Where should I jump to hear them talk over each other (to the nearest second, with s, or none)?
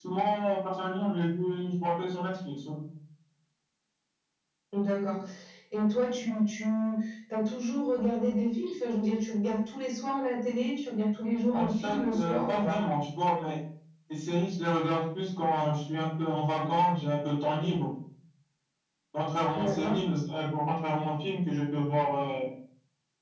12 s